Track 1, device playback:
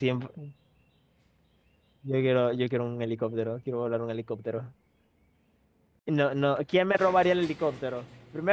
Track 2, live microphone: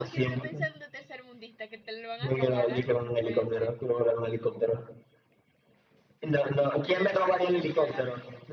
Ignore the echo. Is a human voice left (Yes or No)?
Yes